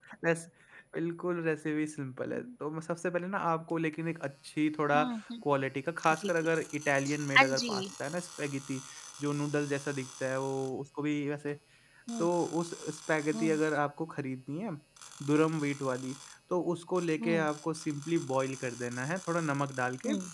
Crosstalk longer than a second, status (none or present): none